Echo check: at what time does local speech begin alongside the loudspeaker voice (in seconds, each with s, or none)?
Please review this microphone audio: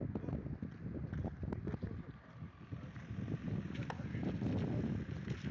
none